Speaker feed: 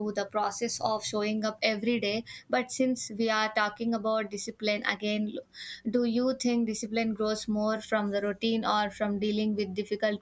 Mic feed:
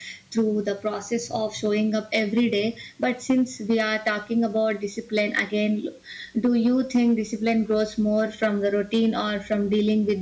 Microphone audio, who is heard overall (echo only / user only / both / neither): echo only